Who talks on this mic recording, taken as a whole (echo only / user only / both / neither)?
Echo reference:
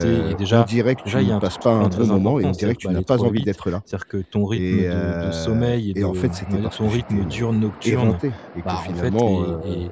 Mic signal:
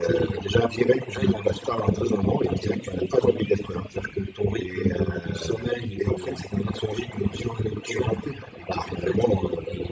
echo only